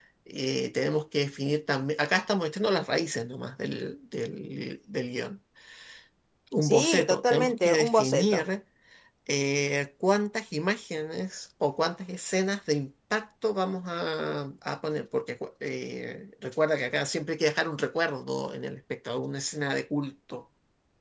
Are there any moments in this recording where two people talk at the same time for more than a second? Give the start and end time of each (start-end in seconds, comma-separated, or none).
6.6-8.4